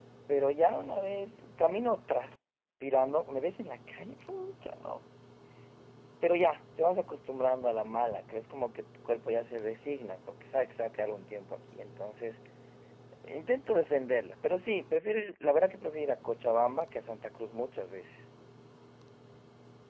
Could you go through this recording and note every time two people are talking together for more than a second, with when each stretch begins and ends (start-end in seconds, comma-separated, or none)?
none